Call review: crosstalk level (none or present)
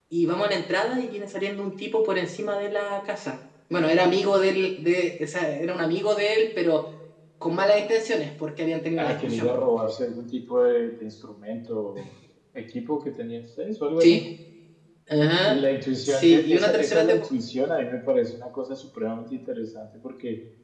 present